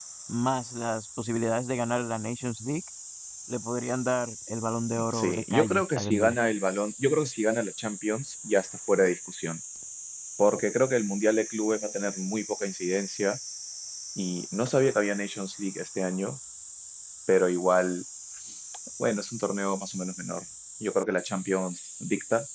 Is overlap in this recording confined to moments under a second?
No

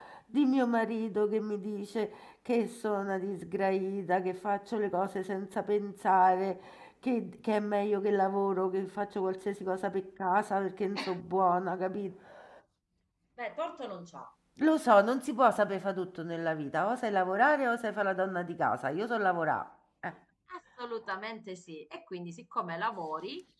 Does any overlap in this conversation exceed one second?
No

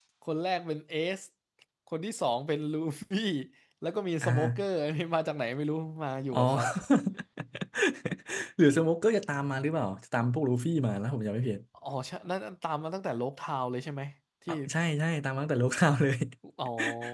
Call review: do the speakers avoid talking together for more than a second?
Yes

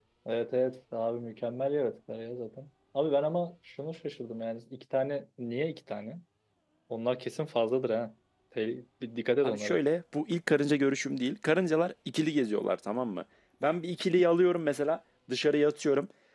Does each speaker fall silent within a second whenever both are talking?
Yes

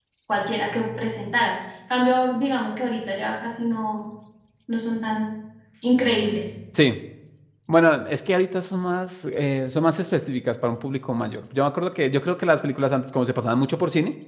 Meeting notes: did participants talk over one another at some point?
No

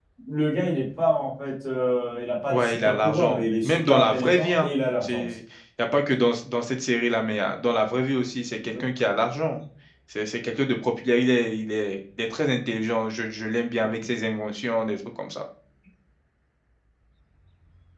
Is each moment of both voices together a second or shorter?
No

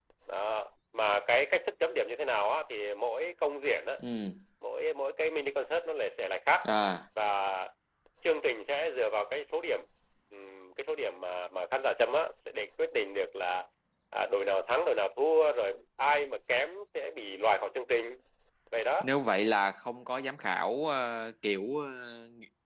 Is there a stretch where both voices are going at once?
No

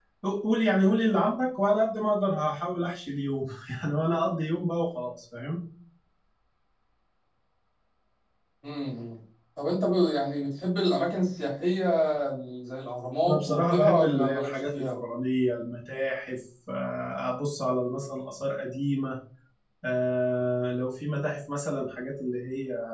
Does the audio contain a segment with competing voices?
Yes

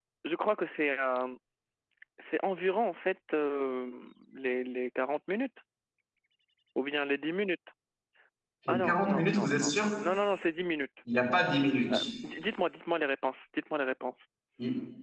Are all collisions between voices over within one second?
No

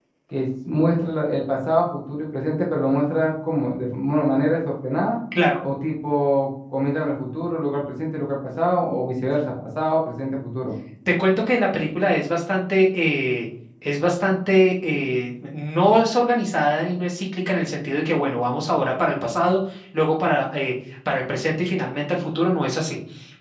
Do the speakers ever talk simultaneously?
No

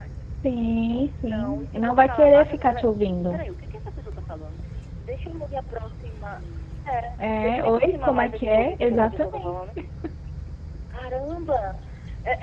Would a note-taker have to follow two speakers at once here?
Yes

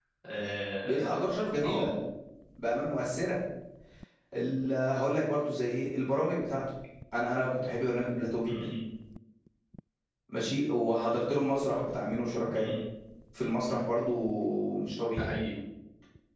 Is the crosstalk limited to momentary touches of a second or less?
Yes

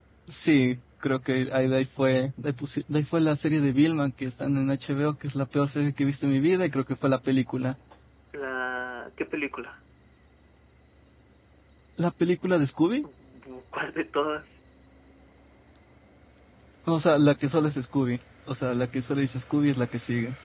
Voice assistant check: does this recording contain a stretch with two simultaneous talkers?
No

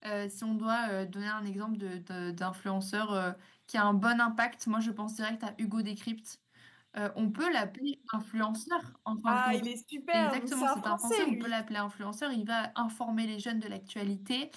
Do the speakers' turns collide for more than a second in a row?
Yes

